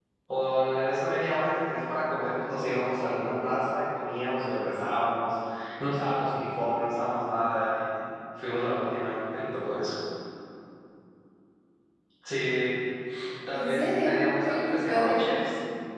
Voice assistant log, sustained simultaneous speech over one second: present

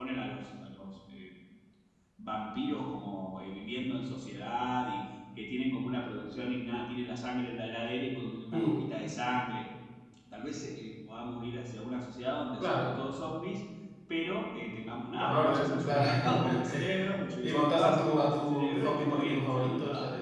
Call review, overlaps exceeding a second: present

